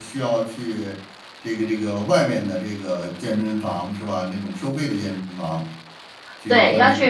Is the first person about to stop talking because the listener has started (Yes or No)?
Yes